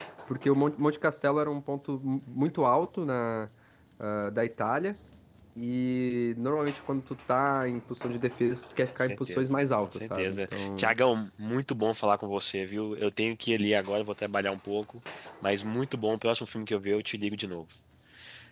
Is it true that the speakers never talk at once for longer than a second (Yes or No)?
No